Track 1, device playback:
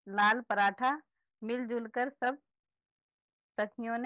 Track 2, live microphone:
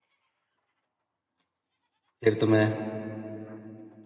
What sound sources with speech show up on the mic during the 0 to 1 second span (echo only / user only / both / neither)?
neither